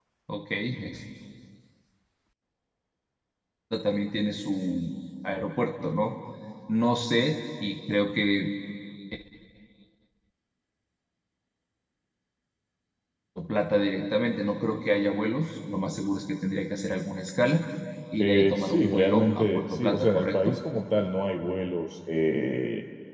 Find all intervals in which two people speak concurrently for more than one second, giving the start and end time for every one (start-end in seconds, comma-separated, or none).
18.2-20.6